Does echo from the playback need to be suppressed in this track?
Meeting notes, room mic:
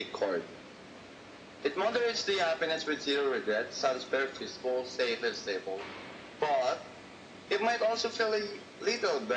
Yes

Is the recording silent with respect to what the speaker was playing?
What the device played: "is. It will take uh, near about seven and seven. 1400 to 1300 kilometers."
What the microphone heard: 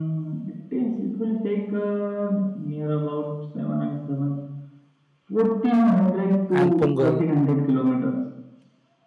No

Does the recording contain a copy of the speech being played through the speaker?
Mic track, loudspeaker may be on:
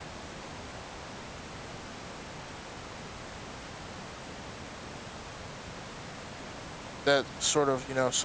No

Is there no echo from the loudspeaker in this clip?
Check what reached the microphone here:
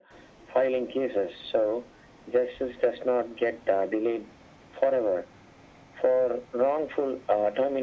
No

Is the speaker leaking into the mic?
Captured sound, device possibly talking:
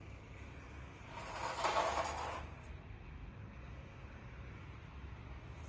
No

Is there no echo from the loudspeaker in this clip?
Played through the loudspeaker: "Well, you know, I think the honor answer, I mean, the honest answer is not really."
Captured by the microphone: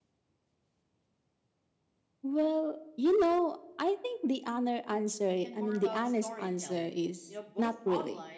No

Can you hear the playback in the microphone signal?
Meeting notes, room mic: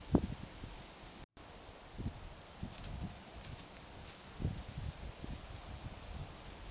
No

